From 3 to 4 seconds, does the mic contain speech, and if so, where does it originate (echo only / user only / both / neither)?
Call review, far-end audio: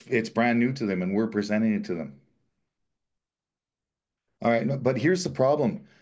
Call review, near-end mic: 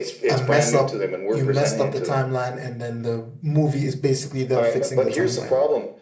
user only